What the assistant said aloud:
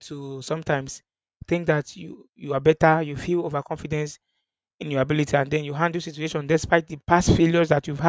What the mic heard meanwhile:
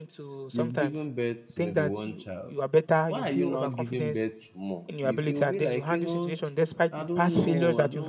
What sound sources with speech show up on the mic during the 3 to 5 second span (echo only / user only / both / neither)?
both